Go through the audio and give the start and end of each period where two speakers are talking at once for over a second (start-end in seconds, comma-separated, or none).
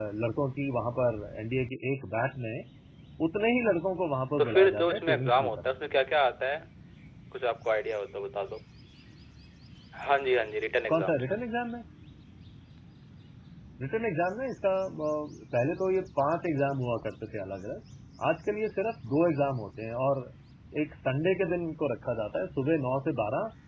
4.4-5.8